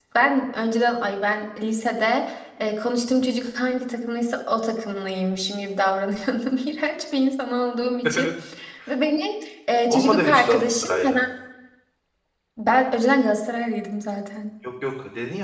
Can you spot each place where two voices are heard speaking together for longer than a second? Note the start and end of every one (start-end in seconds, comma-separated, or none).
9.9-11.2